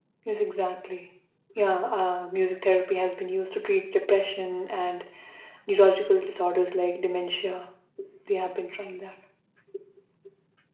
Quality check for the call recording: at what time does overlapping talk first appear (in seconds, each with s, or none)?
none